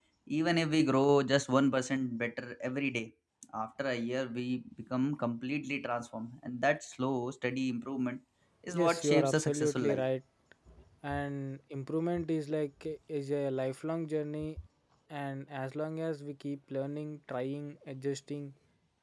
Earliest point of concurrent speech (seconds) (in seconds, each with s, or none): 8.8 s